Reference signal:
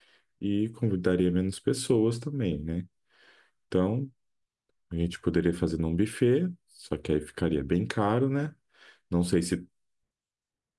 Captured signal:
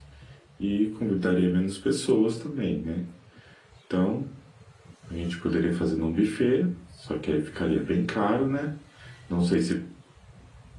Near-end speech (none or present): none